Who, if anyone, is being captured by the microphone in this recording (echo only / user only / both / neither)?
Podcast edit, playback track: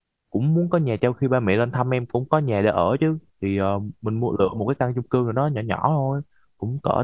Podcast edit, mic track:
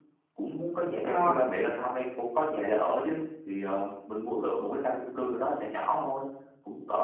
both